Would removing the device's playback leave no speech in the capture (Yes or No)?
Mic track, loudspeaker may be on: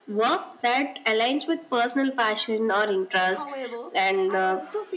No